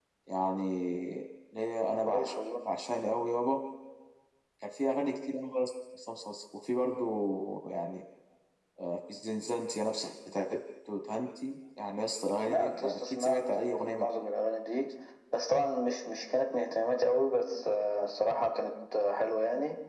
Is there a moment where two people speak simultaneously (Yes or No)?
Yes